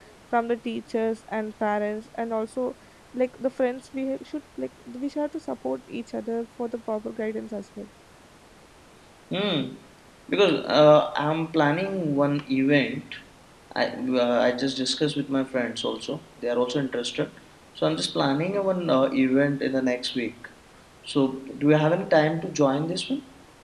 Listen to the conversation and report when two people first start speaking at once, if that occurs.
none

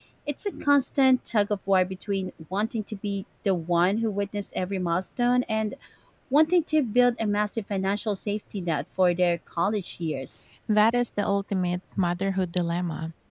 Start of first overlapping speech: none

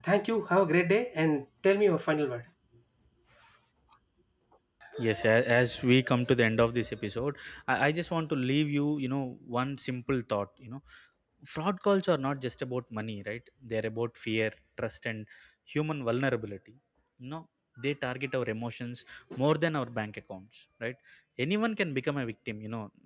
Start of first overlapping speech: none

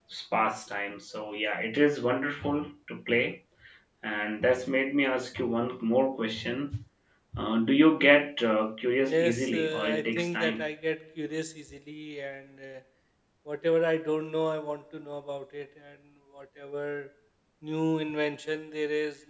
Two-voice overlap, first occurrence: 9 s

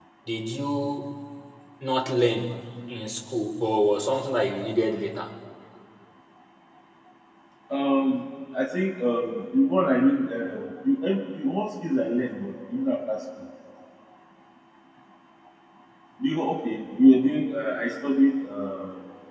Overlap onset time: none

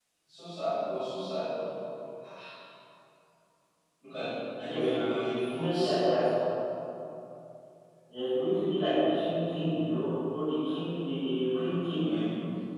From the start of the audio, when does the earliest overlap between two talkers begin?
5 s

